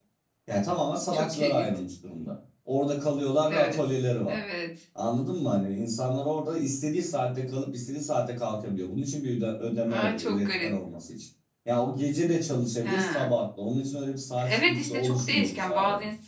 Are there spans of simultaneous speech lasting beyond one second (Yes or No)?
Yes